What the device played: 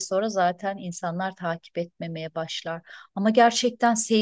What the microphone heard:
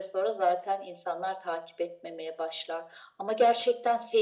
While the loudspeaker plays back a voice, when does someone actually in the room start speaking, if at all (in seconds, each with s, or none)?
none